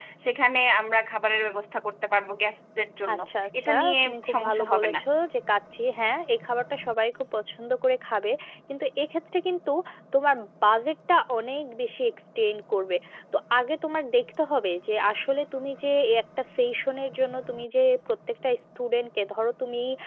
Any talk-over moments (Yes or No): Yes